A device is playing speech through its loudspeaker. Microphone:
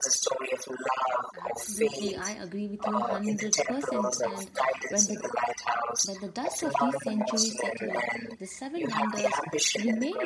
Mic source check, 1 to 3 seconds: both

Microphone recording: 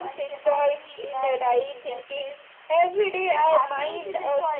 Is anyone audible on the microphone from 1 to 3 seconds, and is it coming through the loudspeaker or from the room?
both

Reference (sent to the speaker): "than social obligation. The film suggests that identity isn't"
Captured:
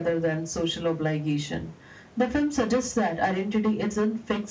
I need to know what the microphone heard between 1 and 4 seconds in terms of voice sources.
echo only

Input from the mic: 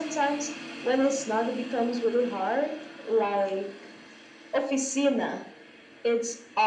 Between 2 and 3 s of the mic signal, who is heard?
echo only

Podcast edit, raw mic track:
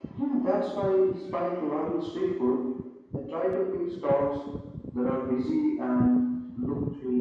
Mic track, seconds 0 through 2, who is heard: echo only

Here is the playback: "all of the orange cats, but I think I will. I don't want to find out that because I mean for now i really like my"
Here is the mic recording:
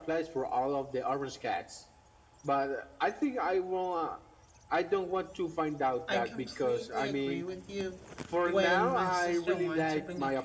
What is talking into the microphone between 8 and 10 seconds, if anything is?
both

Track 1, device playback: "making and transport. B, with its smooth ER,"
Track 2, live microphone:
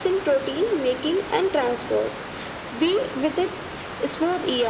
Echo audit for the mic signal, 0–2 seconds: echo only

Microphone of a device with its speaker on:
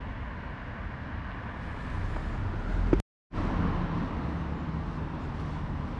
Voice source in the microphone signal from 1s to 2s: neither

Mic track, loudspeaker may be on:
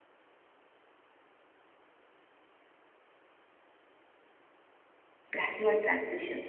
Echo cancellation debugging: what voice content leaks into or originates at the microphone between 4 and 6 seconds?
user only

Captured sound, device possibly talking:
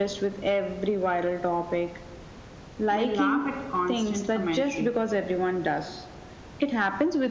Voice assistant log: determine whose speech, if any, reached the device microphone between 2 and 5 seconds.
both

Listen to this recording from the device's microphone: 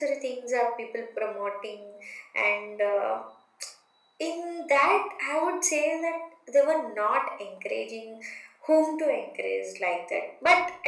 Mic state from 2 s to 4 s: echo only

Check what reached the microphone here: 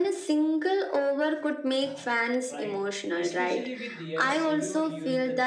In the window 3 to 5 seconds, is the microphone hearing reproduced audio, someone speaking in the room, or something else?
both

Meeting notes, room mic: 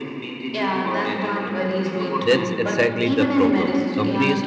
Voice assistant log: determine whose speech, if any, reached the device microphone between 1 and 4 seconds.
both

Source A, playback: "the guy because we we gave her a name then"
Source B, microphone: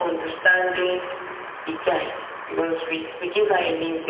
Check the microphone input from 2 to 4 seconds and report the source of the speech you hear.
echo only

